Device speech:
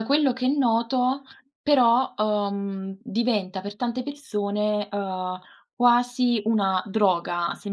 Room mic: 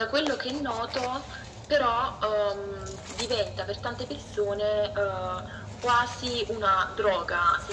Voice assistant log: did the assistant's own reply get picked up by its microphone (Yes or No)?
Yes